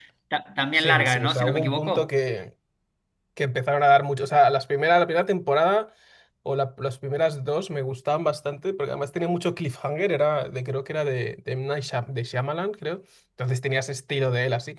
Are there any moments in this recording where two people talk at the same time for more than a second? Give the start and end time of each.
0.8-2.1

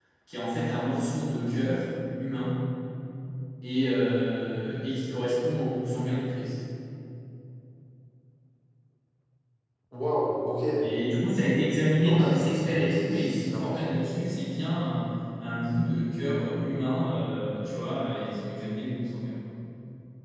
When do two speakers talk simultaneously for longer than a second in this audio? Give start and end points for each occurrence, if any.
12.0-14.0

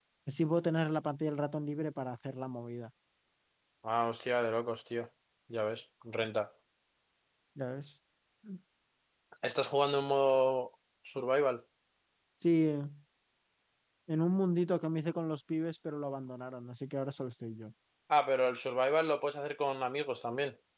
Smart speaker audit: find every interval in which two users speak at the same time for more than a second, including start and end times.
none

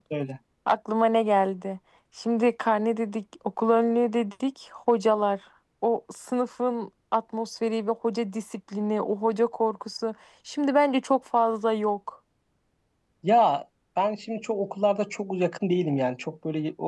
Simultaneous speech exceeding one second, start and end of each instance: none

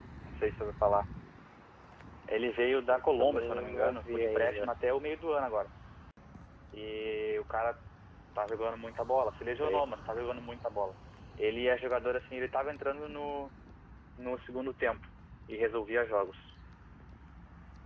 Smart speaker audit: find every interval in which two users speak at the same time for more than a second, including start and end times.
2.9-4.7

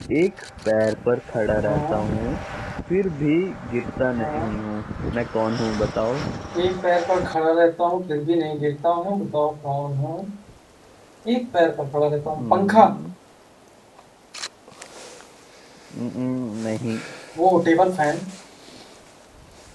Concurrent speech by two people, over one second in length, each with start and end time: none

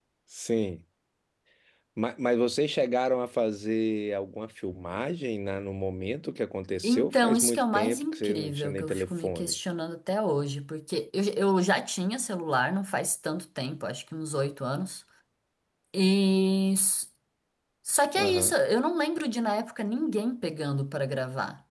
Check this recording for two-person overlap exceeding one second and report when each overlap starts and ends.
6.8-9.6

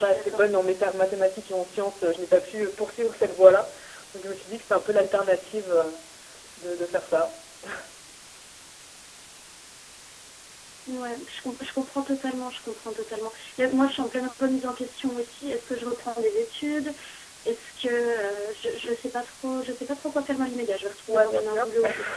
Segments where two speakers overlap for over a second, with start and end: none

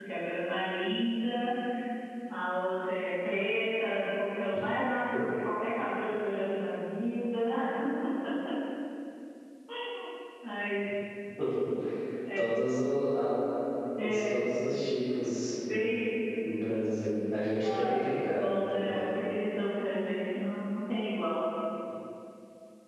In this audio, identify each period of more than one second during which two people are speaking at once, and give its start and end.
17.6-19.1

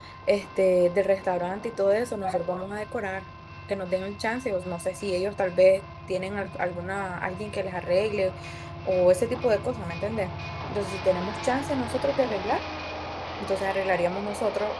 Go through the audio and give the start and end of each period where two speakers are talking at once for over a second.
none

